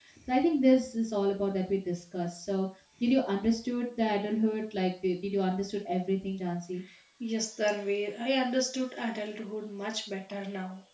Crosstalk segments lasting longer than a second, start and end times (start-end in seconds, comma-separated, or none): none